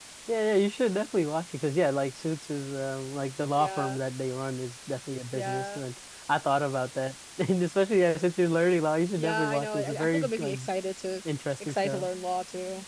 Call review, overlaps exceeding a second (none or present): present